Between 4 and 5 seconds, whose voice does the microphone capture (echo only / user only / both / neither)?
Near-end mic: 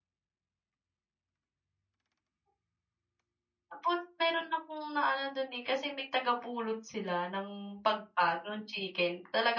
user only